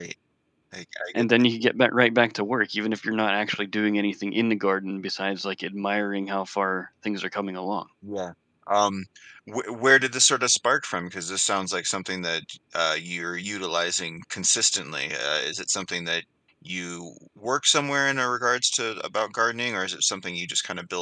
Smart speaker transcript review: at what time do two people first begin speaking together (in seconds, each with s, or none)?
none